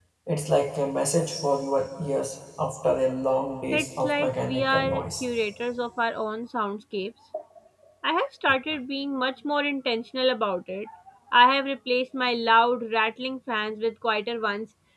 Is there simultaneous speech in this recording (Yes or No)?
Yes